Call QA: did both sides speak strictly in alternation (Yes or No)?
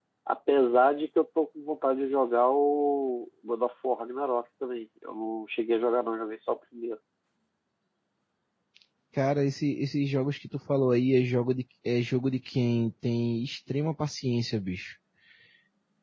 Yes